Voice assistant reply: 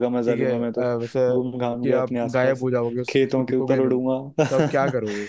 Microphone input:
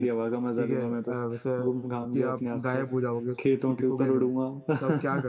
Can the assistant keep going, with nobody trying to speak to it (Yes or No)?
Yes